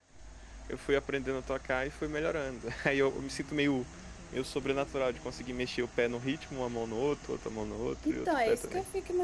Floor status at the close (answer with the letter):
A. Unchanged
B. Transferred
B